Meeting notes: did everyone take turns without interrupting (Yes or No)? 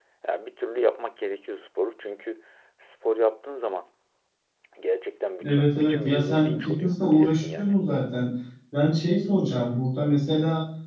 No